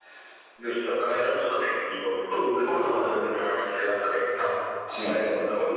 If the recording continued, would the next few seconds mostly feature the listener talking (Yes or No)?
No